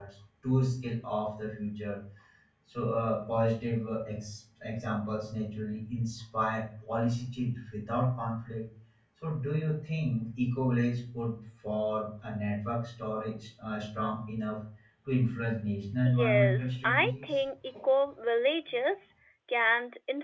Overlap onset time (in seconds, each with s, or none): 16.0 s